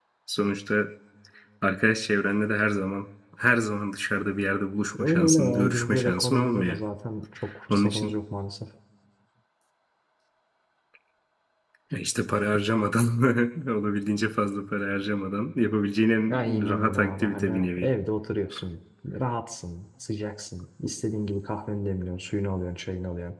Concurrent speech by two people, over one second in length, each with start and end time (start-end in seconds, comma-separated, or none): 5.0-6.8, 16.3-17.9